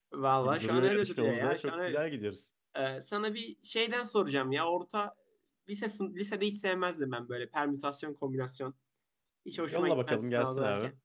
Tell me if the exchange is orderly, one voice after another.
No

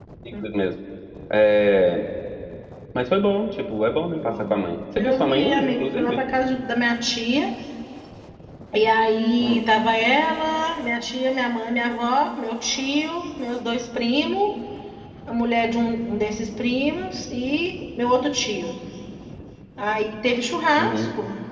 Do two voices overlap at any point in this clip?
Yes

